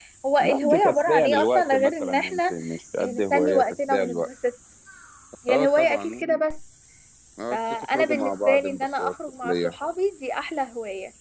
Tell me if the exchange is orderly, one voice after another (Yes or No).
No